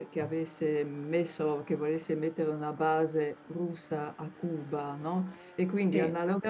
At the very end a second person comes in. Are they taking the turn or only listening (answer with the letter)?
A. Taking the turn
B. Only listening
B